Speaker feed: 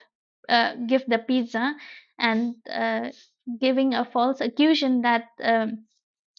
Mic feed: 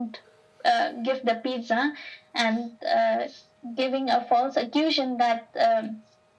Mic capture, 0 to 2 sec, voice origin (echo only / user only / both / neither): echo only